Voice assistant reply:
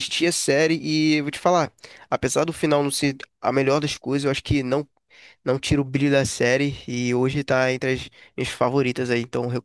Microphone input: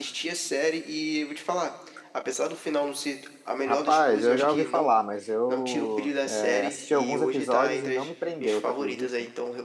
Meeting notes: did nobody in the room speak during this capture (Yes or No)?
No